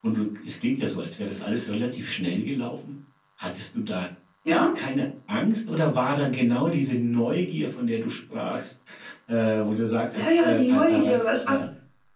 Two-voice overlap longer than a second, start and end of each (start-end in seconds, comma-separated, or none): 10.1-11.6